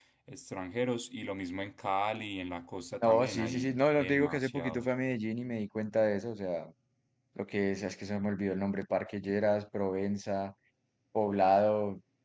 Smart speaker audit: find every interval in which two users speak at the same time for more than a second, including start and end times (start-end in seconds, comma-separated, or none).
3.0-4.9